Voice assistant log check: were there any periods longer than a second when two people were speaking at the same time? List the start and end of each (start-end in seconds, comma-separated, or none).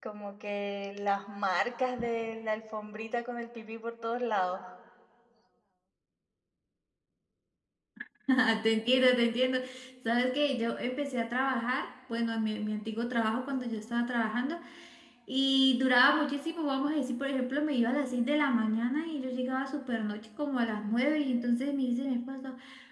none